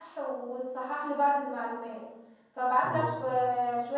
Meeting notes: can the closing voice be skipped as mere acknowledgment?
Yes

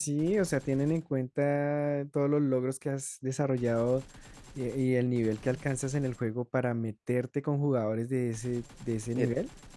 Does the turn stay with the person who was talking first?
No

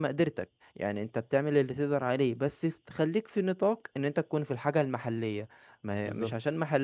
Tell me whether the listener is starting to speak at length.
No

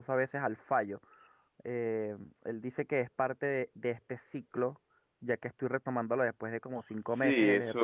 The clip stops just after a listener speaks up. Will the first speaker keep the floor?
No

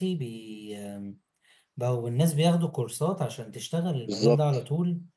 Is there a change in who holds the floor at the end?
No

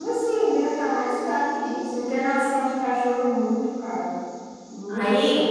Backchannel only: No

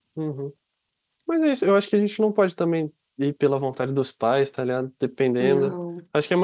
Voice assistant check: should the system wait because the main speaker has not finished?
Yes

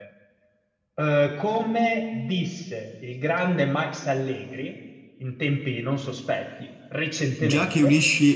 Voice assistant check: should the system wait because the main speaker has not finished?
No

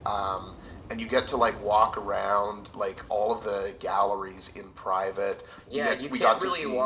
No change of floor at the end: No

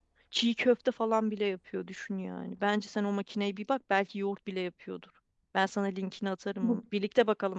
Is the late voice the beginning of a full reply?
No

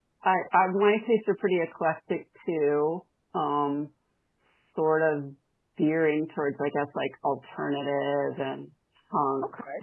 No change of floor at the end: Yes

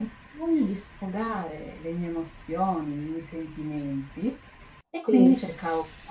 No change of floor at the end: Yes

